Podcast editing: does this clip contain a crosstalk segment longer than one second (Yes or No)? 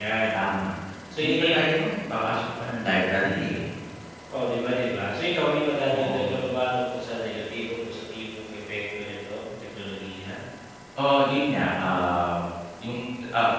No